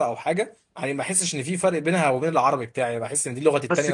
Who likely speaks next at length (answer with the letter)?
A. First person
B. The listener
B